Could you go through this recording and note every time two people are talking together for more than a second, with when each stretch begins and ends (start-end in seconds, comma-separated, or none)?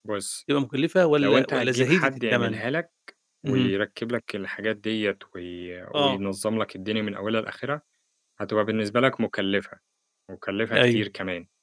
1.2-2.6